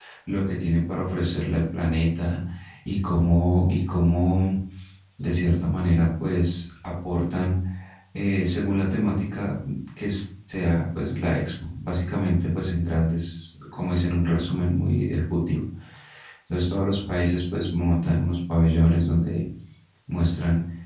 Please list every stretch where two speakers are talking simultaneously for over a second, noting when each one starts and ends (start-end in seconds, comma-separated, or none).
none